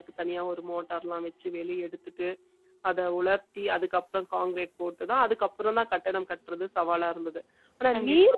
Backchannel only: Yes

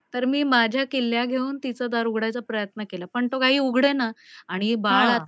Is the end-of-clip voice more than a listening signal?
No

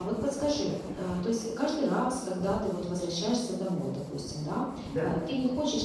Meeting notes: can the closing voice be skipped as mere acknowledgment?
Yes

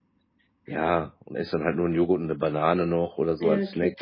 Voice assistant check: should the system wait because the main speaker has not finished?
No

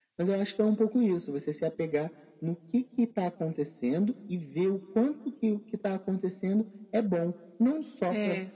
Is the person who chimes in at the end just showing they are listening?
Yes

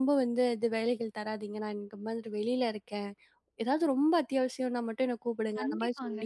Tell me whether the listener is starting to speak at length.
Yes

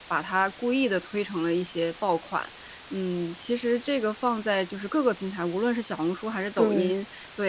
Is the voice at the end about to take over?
No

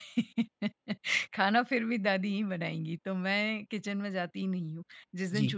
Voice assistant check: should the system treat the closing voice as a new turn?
No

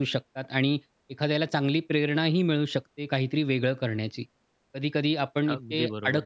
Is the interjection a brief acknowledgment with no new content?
Yes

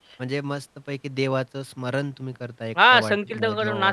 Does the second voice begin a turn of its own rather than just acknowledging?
Yes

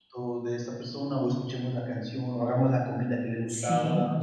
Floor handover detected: Yes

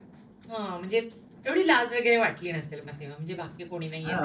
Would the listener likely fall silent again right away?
No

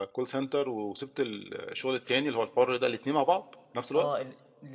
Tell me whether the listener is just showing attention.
No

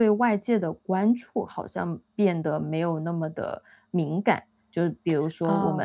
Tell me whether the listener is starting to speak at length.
No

